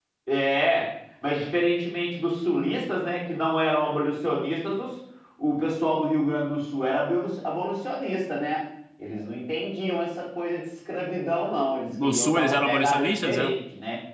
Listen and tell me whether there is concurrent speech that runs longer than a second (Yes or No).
Yes